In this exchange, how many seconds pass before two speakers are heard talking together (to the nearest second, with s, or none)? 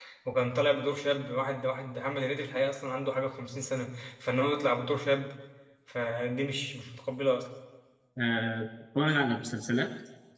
none